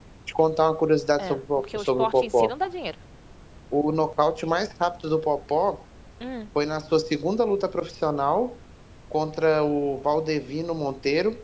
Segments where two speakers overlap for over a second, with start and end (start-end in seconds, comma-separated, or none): 1.2-2.5